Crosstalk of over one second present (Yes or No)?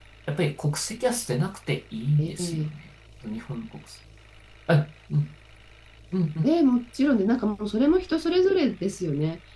No